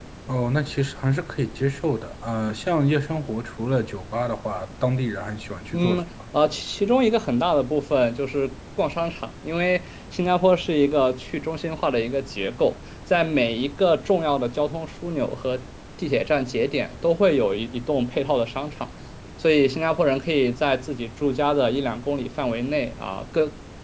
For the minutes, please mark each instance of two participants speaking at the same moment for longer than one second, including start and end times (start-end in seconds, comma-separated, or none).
none